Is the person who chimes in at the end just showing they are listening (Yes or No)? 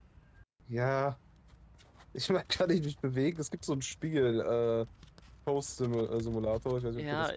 No